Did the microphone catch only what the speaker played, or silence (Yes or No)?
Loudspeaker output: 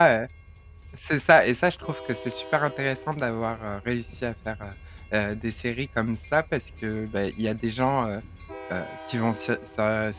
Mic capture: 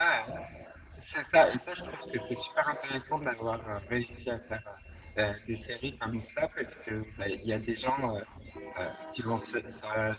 Yes